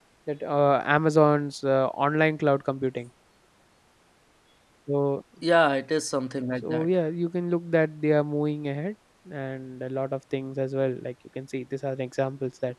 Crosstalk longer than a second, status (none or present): none